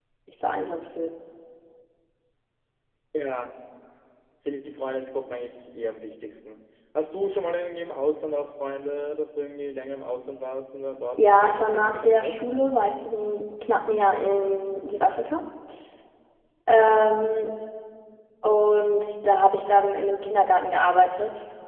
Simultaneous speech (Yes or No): Yes